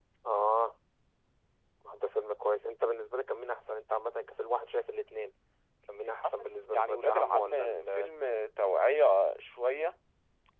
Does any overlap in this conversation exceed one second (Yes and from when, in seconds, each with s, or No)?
Yes, from 6.2 s